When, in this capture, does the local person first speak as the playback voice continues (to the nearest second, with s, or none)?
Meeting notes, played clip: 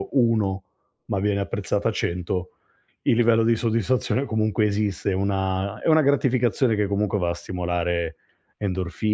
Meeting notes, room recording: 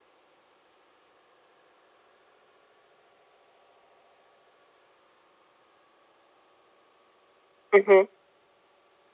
8 s